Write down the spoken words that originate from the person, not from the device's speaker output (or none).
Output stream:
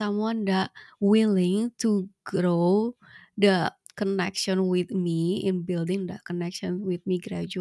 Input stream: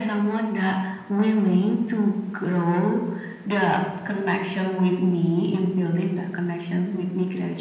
none